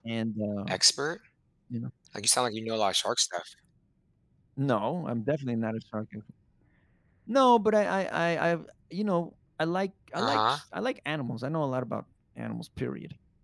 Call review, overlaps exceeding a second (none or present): none